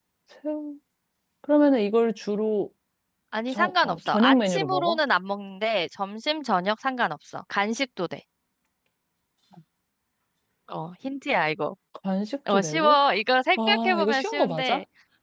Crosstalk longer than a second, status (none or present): present